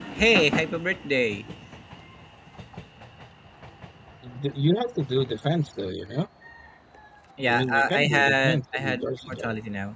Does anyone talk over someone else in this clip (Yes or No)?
Yes